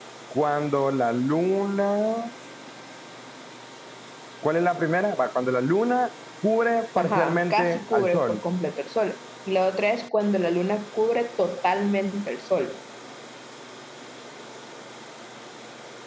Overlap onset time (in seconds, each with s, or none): 7.0 s